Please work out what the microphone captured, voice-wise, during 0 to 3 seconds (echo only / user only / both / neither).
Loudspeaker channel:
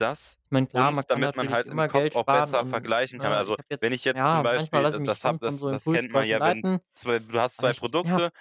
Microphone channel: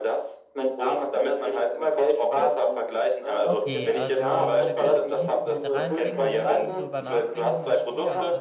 echo only